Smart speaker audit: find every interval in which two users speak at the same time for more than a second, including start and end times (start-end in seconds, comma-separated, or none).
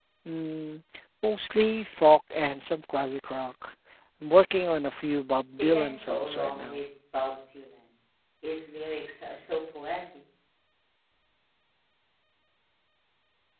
5.6-6.8